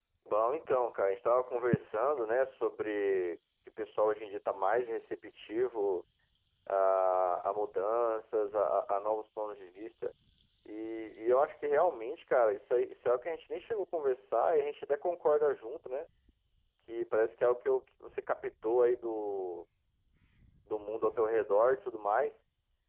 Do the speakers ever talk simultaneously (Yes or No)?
No